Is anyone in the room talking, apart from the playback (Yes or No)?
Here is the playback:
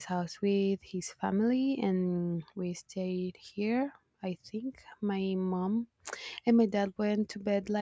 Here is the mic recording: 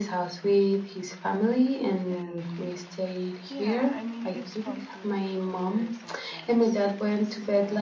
Yes